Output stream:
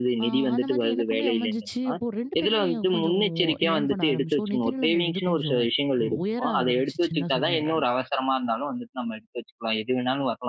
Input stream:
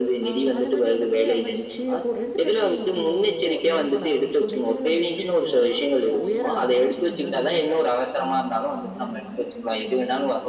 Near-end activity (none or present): present